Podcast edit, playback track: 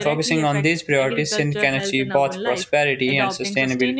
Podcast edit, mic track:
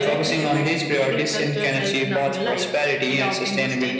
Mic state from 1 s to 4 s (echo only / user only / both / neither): echo only